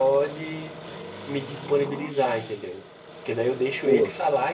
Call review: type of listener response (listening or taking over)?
listening